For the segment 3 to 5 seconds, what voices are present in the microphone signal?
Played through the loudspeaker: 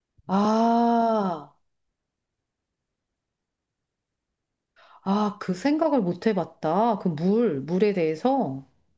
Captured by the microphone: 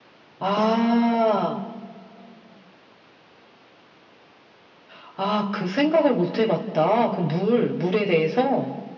neither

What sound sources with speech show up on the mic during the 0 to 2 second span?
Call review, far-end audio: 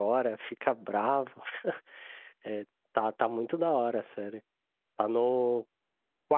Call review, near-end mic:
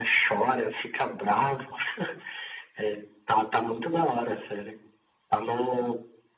echo only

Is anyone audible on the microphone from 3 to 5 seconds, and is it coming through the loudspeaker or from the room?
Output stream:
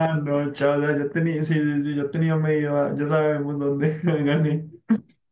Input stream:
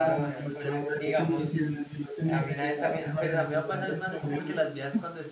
both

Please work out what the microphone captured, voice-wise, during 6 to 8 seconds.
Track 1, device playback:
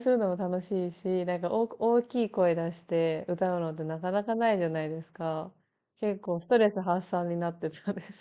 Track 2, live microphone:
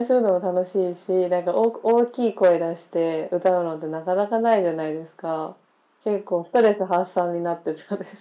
echo only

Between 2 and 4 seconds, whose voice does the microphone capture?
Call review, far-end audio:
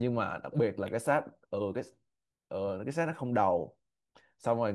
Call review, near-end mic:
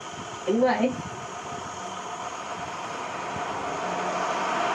neither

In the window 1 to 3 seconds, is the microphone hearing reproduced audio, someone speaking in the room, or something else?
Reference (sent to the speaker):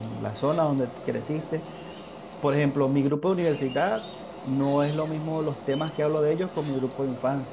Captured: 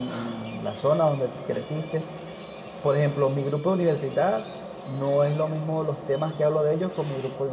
echo only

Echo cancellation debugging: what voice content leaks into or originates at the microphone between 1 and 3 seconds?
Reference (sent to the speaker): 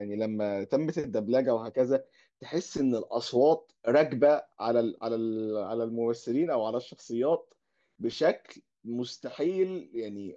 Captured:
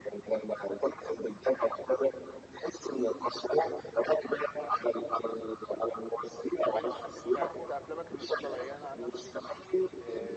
echo only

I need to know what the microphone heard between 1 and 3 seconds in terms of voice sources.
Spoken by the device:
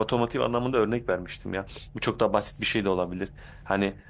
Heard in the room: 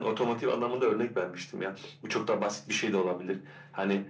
echo only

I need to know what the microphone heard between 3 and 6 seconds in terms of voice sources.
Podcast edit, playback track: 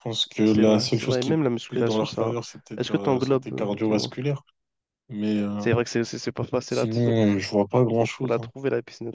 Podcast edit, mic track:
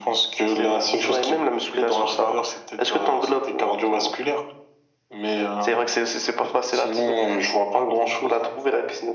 echo only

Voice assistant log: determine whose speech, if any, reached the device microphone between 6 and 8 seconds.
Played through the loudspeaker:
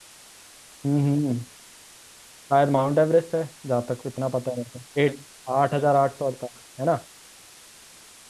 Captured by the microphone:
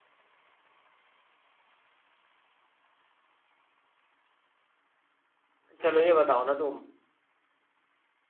user only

